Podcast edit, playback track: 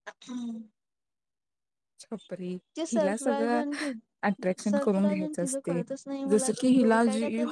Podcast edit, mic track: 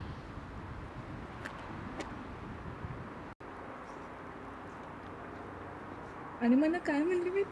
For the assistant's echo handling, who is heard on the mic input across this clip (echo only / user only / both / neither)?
user only